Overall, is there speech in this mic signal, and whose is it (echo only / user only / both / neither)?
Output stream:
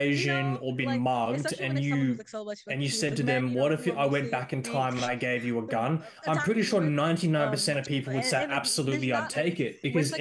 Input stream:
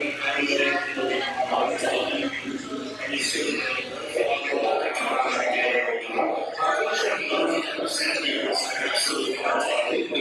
echo only